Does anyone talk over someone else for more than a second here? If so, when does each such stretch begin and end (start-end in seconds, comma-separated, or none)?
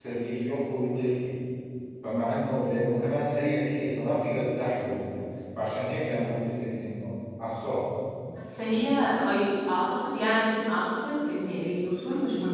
none